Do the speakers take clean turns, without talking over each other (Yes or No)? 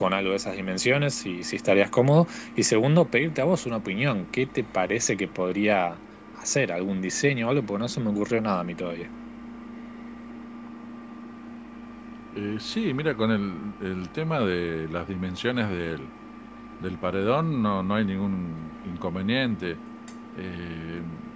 Yes